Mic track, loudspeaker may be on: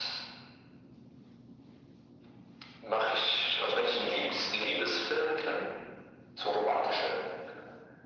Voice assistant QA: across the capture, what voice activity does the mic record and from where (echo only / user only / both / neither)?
echo only